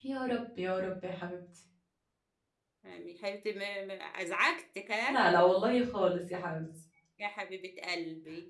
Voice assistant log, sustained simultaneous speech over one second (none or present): none